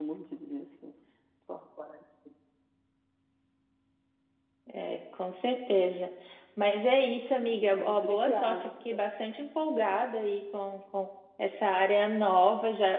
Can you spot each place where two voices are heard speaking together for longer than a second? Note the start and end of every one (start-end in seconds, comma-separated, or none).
7.5-8.7